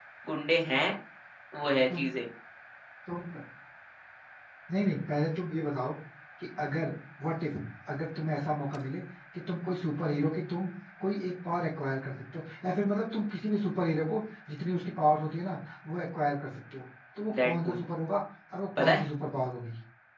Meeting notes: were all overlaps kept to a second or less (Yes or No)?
Yes